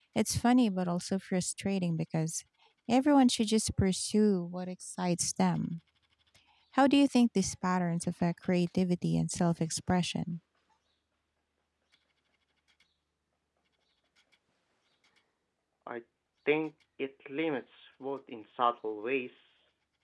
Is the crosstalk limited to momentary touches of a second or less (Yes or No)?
Yes